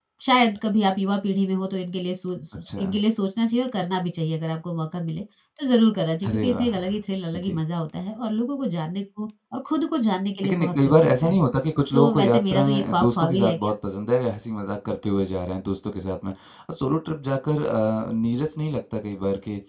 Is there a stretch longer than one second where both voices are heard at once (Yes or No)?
Yes